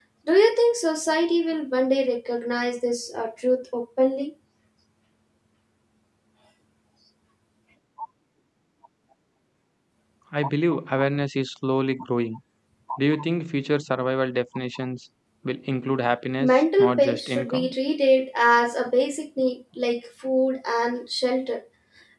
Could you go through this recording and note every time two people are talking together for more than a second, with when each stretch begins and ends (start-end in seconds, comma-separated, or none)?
16.4-17.7